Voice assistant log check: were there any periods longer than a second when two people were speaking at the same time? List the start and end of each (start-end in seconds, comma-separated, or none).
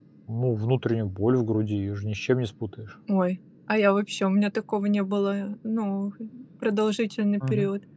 none